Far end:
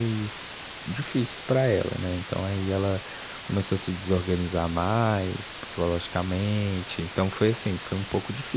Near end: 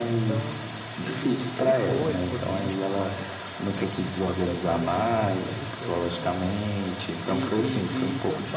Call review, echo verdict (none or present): present